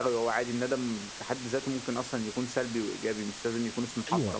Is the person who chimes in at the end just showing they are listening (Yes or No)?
No